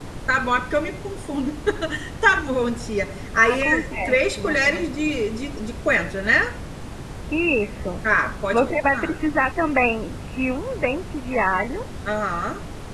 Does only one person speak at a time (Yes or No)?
No